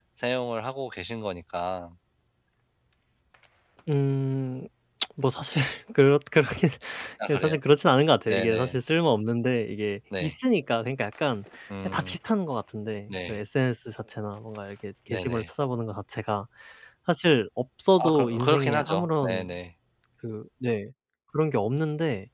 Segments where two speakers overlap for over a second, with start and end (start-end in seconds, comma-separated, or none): 18.0-19.5